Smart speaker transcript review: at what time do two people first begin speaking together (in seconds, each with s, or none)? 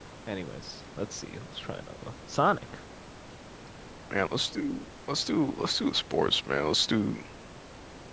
none